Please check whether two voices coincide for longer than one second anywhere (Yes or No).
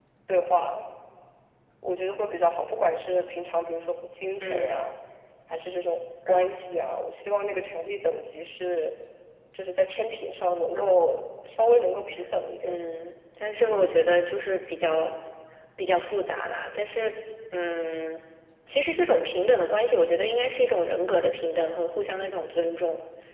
No